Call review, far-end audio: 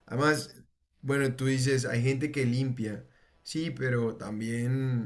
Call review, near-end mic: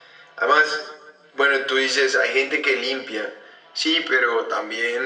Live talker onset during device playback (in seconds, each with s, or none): none